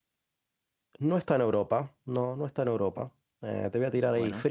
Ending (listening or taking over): listening